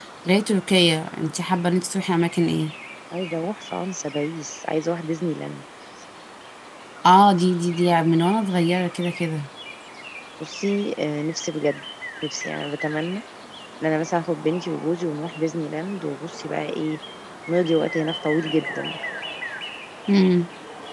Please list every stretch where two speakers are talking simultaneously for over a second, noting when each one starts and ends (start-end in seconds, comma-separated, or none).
none